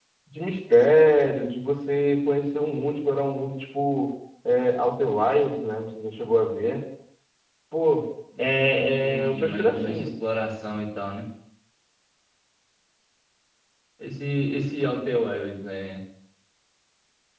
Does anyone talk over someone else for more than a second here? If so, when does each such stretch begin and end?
8.4-10.1

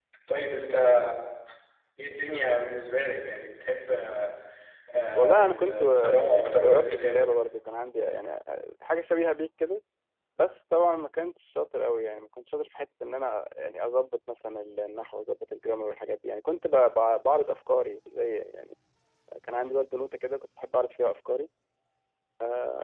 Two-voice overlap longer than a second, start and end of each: 5.1-7.3

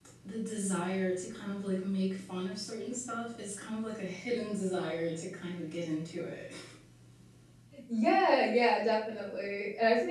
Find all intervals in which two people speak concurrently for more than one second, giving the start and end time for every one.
none

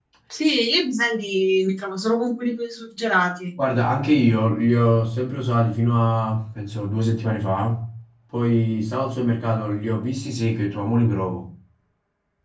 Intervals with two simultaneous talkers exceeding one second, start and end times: none

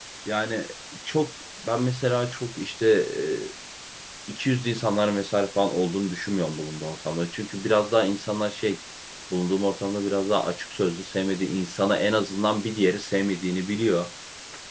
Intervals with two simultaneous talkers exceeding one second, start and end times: none

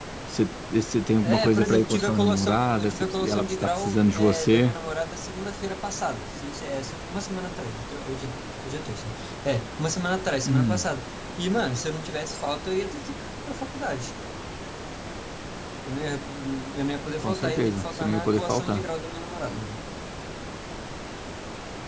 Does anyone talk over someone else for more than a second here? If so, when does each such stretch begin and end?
1.2-4.8, 17.2-18.8

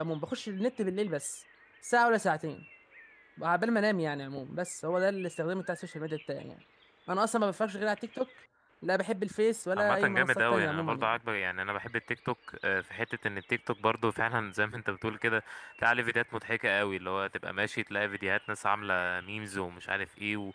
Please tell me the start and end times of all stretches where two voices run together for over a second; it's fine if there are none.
9.8-11.1

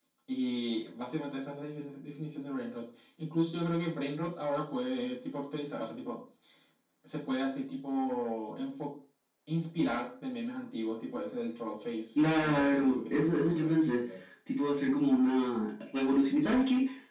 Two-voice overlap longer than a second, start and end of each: 12.4-14.0

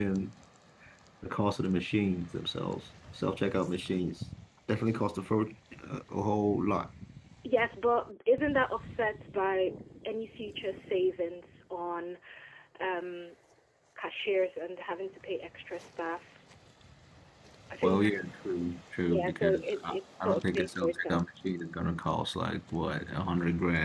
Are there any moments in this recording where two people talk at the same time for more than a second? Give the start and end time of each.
19.0-21.2

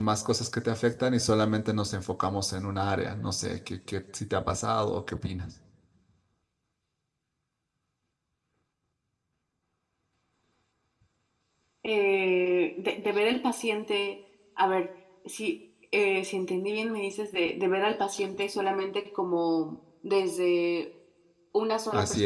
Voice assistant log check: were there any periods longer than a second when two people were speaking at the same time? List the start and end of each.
none

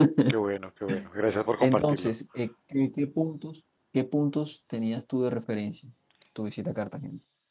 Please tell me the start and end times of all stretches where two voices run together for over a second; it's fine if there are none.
none

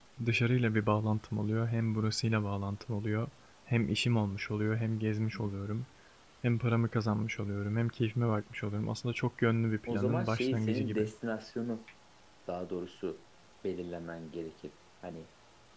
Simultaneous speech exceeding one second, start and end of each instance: 9.9-11.1

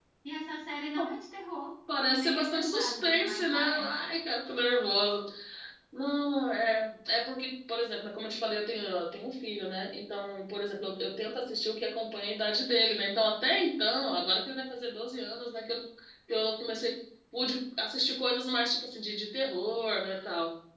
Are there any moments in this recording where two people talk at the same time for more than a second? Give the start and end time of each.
2.1-3.9

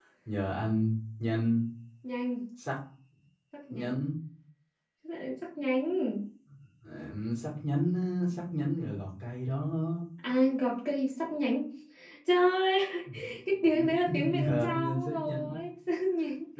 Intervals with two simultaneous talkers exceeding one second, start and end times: 14.1-15.5

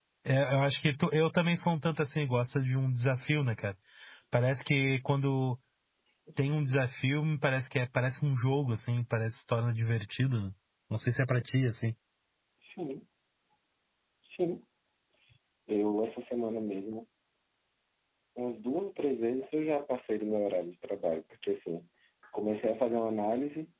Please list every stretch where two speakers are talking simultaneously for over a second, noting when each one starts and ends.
none

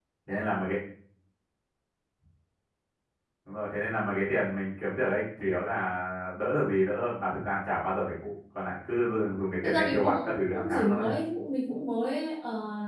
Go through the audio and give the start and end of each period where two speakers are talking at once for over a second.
9.6-11.0

